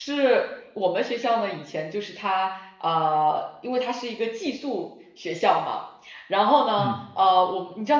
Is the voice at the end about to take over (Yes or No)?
No